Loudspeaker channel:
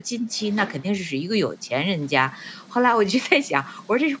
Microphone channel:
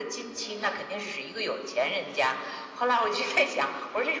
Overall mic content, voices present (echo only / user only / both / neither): echo only